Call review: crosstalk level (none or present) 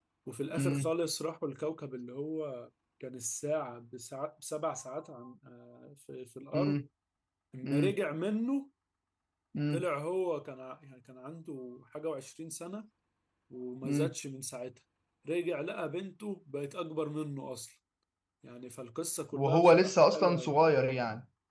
present